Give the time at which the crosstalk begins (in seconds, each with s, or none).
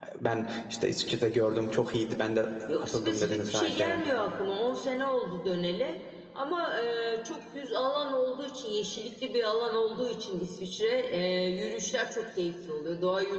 2.7 s